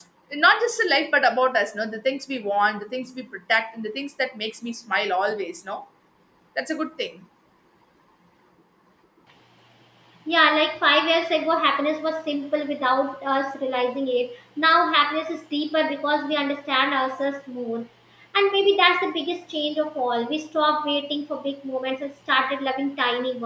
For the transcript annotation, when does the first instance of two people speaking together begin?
none

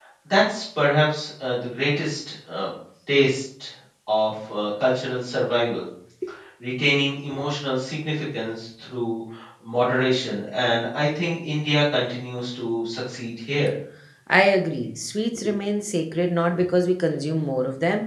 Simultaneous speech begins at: none

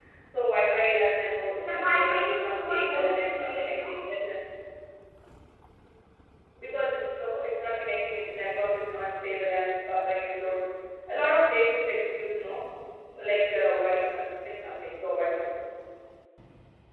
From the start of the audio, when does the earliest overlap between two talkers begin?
1.6 s

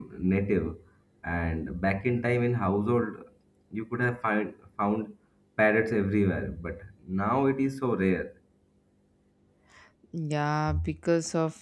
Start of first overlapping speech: none

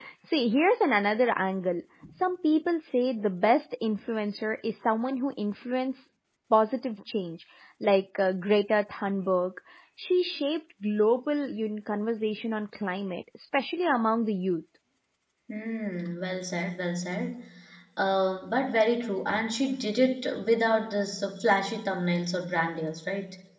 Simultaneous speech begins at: none

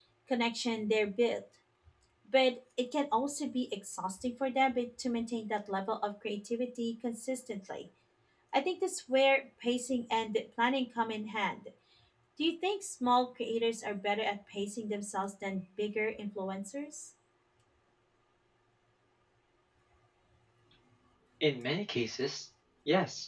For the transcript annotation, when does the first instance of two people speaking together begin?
none

